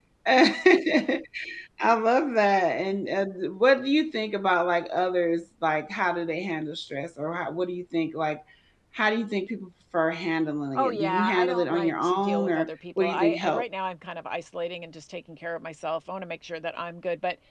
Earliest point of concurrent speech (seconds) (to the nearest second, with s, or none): 11 s